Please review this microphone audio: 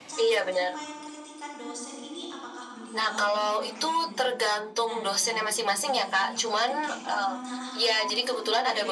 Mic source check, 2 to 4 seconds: both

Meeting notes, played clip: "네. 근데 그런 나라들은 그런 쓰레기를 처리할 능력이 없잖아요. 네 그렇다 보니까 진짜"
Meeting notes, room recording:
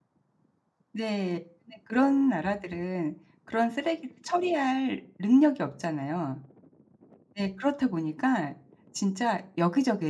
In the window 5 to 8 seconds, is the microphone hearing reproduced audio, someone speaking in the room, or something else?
echo only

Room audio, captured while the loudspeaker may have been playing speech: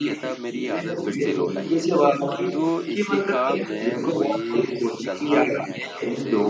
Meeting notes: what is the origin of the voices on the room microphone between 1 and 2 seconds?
both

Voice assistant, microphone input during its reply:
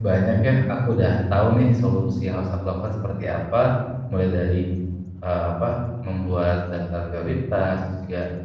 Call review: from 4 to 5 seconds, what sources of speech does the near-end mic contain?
user only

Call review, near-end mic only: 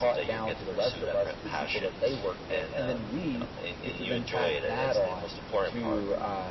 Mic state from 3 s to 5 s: echo only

